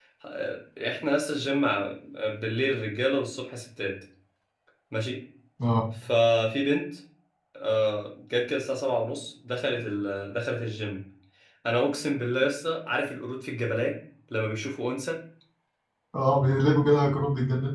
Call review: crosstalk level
none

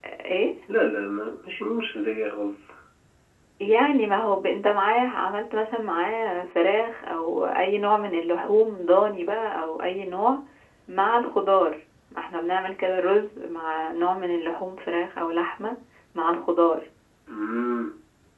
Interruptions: none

